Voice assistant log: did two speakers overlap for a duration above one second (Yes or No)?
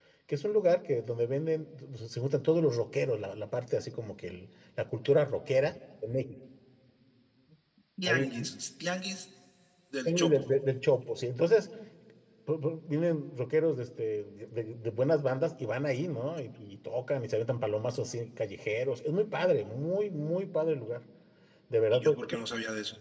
No